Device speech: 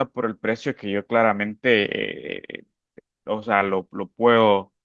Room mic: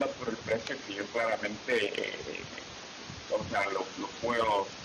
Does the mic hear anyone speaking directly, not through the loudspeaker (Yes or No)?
No